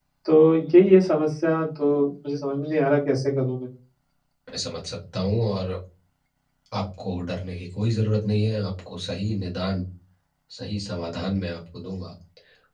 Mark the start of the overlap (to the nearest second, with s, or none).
none